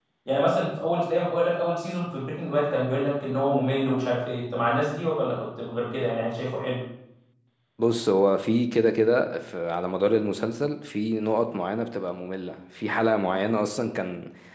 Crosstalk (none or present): none